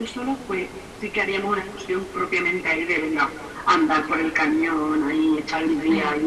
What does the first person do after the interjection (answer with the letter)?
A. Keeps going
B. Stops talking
A